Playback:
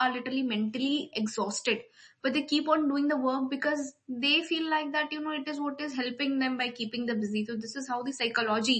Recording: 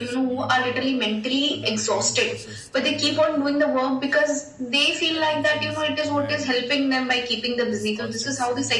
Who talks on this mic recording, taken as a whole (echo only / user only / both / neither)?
both